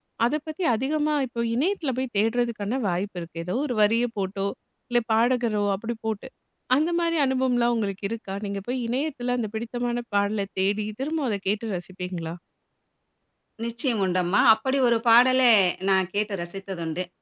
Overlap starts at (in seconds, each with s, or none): none